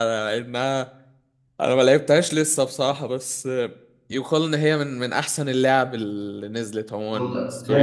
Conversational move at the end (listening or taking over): taking over